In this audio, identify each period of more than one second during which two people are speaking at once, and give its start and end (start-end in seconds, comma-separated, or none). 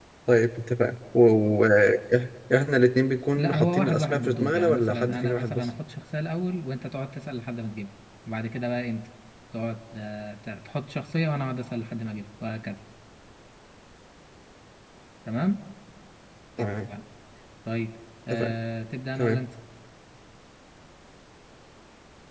3.4-5.7